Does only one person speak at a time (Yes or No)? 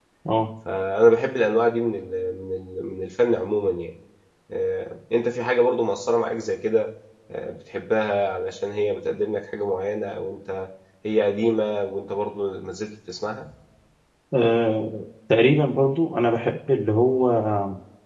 Yes